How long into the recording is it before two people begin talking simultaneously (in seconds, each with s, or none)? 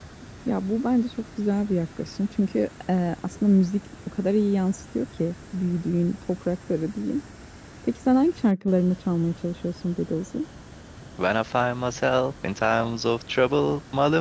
none